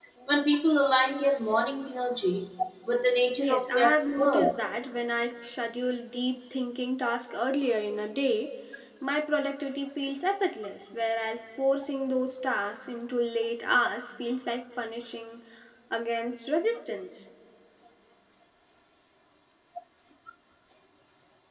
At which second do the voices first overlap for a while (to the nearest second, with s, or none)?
3 s